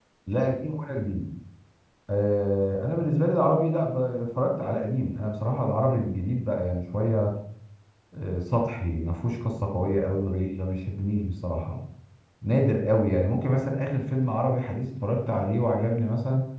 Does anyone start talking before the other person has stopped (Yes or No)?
No